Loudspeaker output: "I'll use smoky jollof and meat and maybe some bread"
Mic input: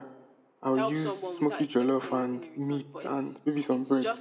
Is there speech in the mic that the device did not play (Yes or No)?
Yes